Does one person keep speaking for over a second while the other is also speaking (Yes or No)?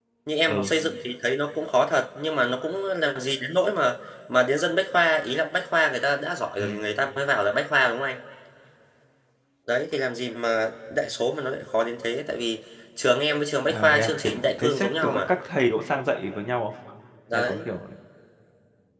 Yes